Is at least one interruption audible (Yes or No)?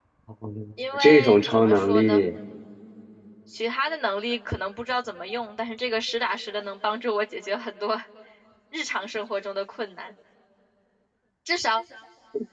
Yes